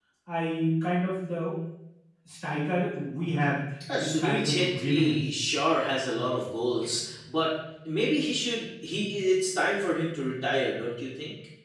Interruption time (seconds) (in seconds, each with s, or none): 3.8 s